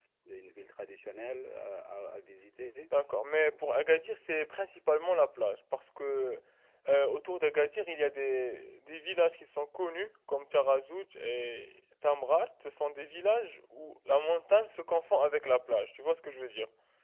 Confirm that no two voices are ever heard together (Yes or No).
Yes